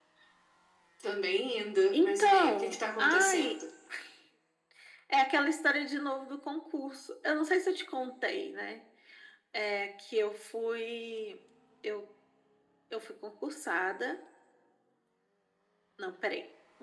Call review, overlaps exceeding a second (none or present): present